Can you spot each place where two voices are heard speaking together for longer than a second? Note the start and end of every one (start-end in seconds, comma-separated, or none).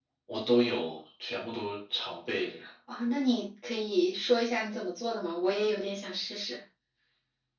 none